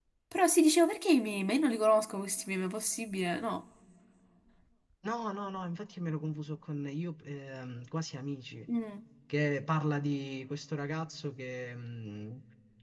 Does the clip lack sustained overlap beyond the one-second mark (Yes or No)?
Yes